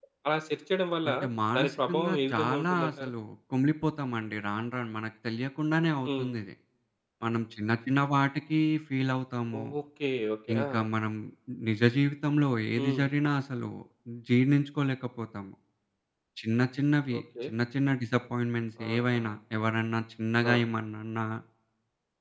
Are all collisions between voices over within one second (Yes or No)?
No